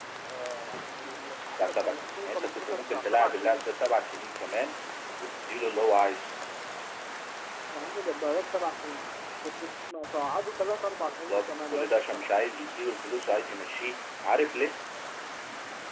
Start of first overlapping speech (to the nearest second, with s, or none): 2 s